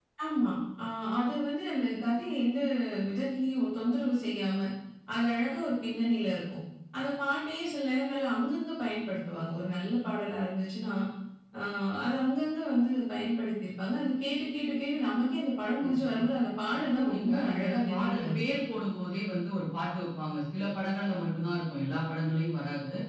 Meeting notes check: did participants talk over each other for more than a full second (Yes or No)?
Yes